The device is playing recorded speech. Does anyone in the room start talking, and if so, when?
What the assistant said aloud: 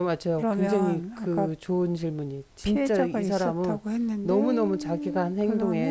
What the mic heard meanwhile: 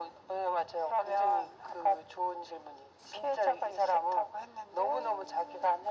none

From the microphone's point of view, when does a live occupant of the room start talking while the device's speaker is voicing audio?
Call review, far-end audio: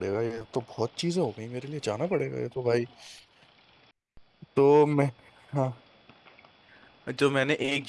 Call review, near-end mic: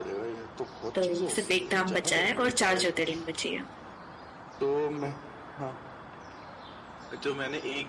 0.9 s

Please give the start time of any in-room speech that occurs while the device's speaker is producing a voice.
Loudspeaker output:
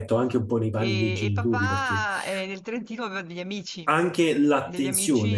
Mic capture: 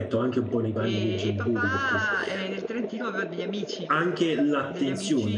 none

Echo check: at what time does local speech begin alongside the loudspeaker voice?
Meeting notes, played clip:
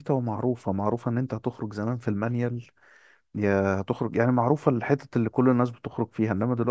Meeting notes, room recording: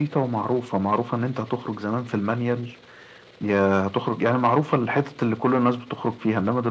none

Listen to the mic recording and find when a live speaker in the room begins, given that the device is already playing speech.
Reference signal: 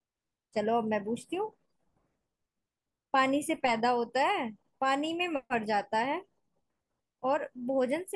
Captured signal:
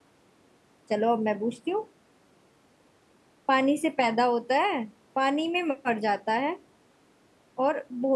none

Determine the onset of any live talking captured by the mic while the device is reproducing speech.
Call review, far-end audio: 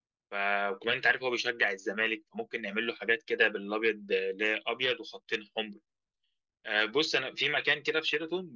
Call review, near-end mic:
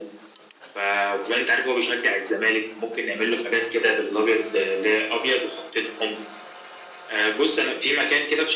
none

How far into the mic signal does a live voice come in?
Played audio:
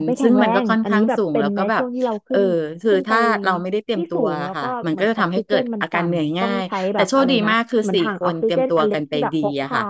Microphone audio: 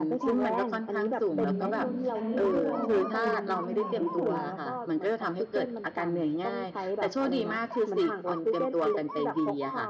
1.3 s

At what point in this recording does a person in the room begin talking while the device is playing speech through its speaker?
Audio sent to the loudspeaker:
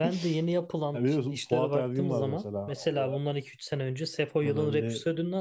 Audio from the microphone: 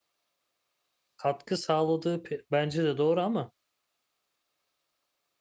1.2 s

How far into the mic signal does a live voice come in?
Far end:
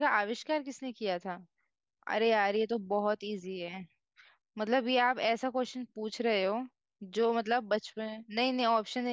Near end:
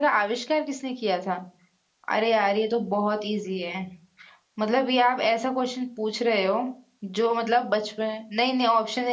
none

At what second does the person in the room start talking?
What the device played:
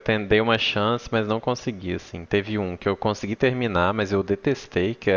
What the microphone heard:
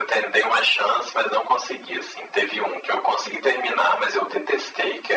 none

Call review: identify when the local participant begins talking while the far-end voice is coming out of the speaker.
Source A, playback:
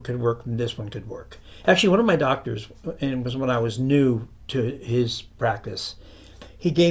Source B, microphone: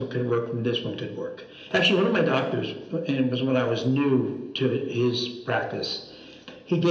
none

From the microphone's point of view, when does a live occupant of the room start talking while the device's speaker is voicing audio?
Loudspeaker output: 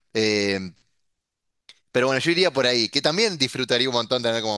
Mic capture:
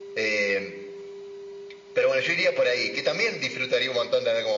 none

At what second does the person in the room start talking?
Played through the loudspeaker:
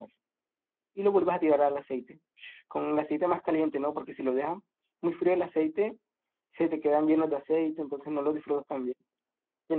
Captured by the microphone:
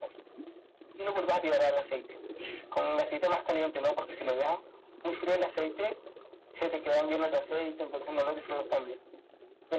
none

